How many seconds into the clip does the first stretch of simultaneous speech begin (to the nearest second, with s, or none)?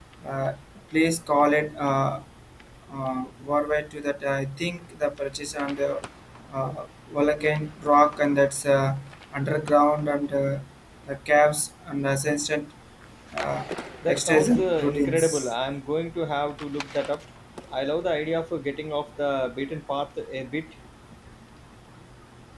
14 s